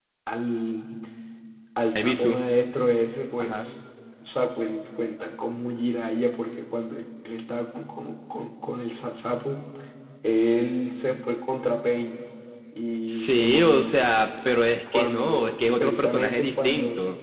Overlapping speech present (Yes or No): Yes